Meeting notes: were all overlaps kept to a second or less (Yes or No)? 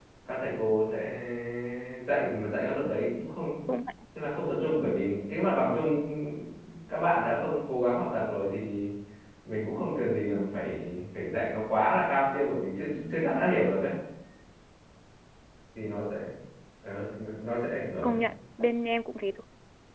Yes